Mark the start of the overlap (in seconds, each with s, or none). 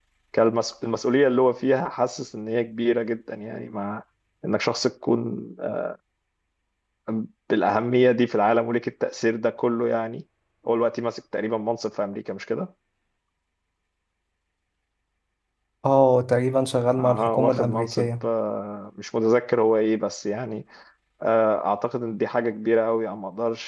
17.0 s